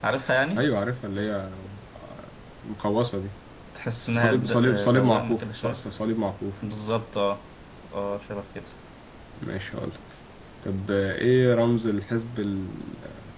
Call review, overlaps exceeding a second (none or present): present